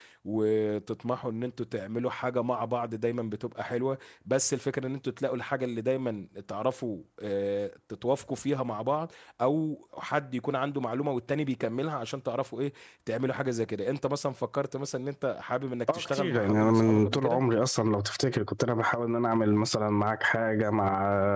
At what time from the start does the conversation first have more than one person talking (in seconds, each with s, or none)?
15.9 s